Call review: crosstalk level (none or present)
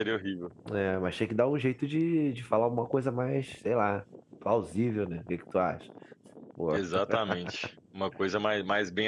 none